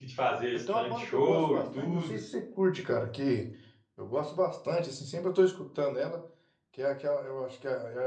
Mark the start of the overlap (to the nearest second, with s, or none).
1 s